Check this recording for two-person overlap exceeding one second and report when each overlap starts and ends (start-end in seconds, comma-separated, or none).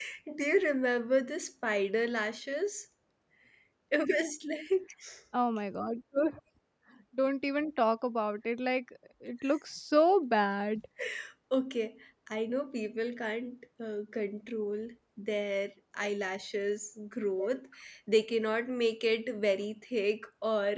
none